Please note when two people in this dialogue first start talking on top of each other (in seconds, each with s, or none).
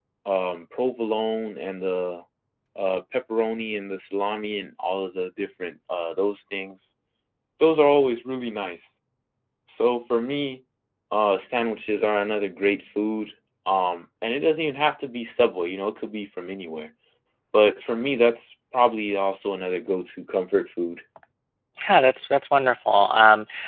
none